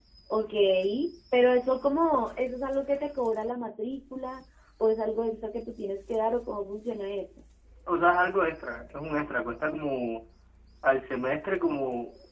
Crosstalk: none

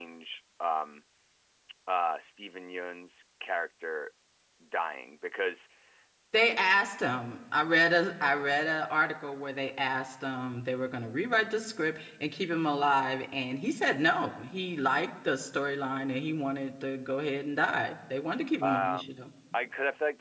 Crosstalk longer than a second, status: none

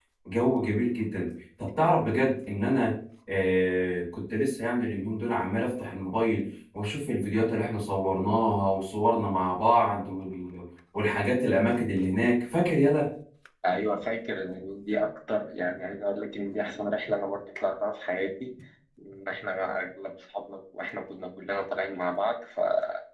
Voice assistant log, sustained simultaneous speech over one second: none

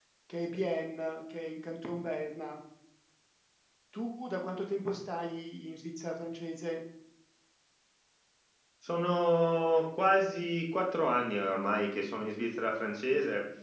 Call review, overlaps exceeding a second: none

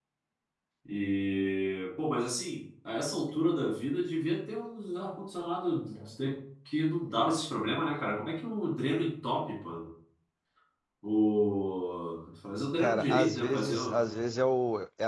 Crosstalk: present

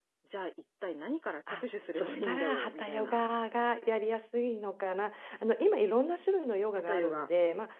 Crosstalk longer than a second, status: present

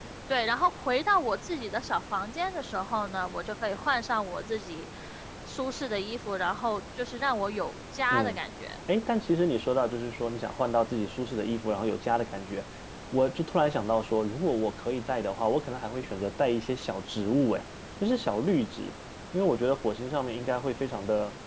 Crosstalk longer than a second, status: none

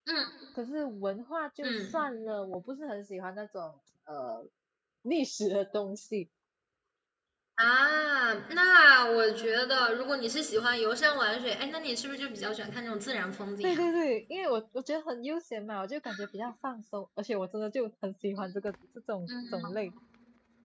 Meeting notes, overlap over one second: none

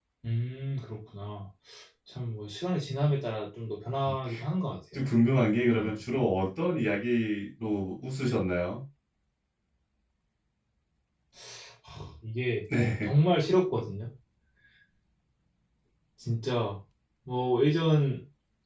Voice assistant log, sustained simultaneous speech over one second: none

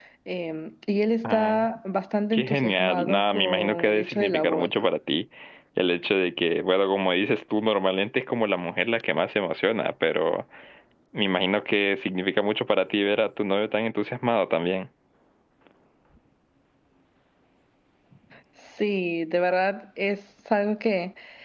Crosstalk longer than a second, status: present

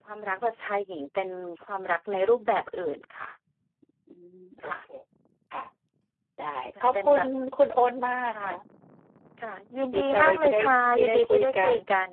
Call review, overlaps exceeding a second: present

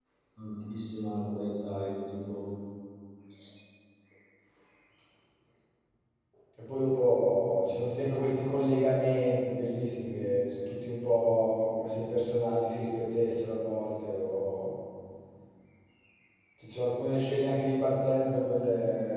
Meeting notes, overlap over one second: none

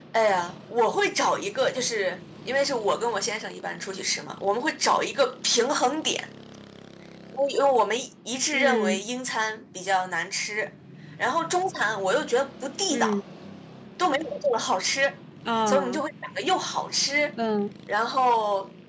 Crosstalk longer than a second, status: none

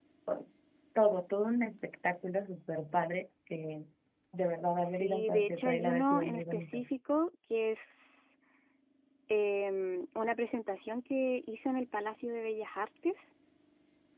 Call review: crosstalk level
present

